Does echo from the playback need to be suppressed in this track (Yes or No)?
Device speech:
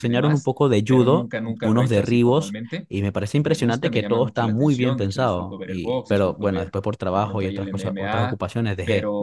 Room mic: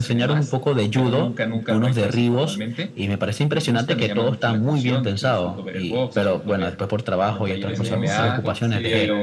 Yes